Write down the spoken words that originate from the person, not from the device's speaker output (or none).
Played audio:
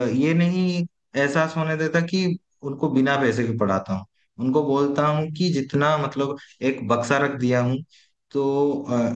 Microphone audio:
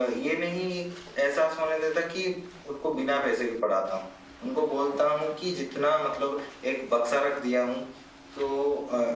none